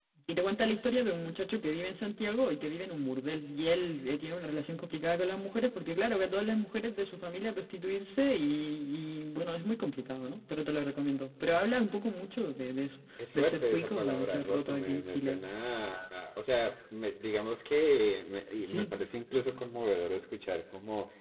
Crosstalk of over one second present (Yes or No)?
Yes